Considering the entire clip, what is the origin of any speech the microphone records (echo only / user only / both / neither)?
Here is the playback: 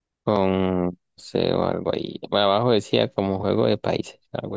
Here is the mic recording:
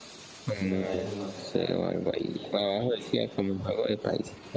both